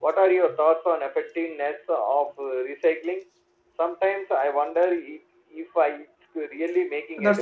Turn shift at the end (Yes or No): Yes